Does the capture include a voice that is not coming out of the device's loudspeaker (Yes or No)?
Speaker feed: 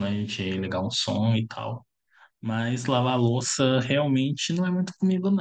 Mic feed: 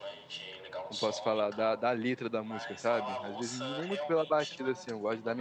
Yes